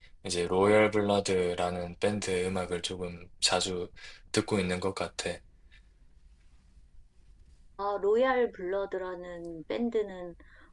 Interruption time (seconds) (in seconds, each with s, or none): none